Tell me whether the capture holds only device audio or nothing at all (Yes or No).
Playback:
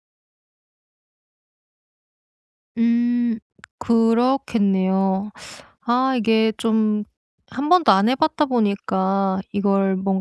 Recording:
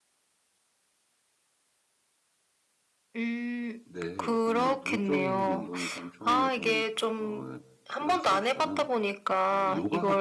No